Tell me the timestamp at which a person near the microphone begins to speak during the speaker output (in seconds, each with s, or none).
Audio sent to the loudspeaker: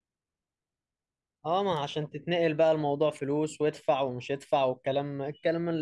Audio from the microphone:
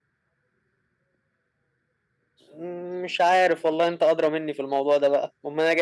2.5 s